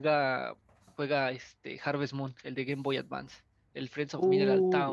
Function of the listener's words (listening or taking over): taking over